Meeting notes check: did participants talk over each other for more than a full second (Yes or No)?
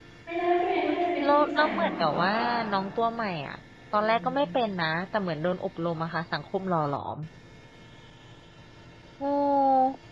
Yes